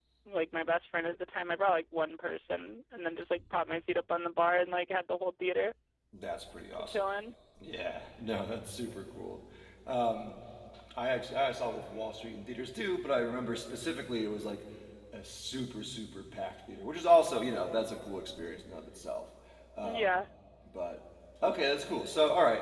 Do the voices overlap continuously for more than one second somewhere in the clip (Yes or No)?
No